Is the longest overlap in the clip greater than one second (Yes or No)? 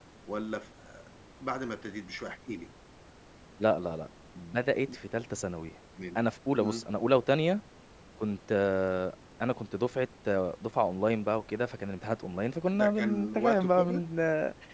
Yes